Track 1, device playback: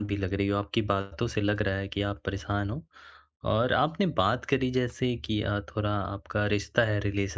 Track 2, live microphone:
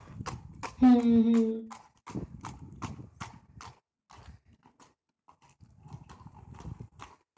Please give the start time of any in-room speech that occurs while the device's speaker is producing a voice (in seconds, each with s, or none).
0.8 s